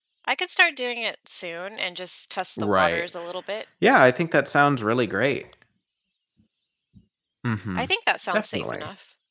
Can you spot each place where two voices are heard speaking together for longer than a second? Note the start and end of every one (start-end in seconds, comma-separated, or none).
none